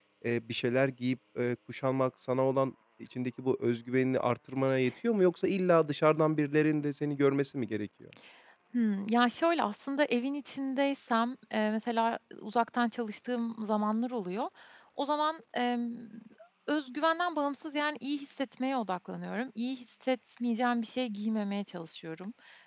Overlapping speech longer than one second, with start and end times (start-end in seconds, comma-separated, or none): none